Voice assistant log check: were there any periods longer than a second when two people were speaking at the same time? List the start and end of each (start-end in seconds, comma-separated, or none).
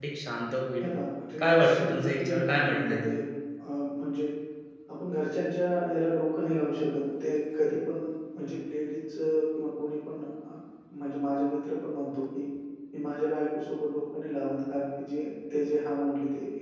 1.4-3.1